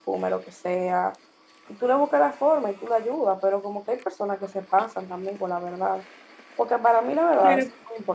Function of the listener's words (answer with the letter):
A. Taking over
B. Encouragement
B